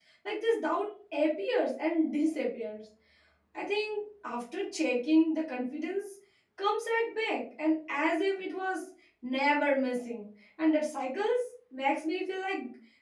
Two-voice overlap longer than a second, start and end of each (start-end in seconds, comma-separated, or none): none